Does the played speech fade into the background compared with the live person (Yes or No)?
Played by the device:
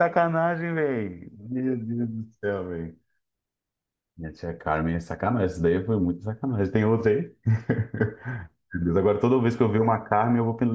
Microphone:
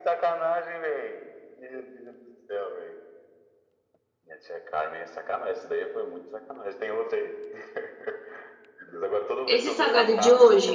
Yes